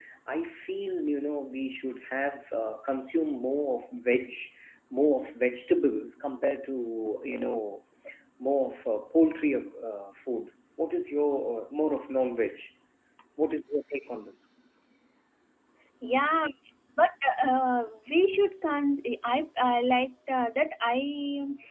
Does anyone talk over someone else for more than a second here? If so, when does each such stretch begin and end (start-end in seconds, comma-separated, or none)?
none